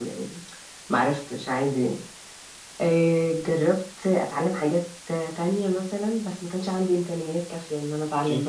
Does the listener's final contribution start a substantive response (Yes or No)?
Yes